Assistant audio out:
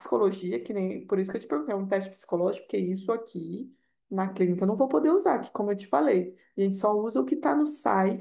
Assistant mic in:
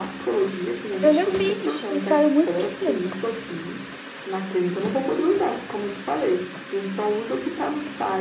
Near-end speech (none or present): present